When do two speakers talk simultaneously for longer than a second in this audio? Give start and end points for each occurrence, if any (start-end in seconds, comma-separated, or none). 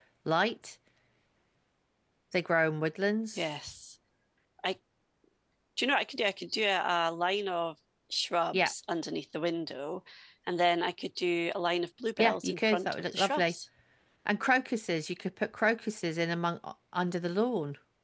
12.2-13.5